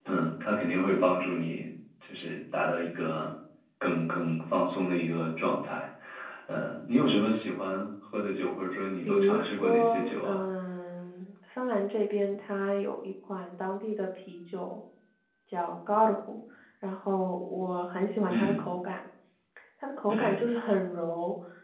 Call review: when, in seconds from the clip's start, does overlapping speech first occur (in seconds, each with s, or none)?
9.0 s